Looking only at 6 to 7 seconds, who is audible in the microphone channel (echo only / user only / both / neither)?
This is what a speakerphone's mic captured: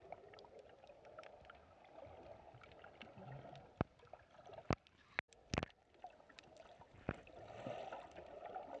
neither